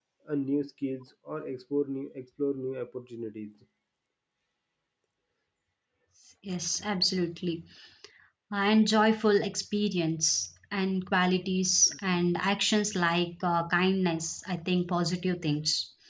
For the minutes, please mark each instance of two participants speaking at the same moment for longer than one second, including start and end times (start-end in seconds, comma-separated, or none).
none